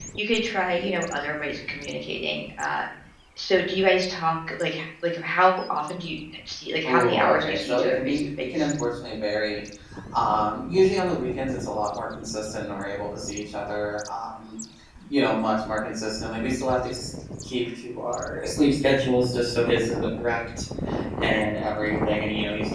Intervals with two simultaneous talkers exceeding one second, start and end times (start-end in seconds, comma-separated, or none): 6.8-8.7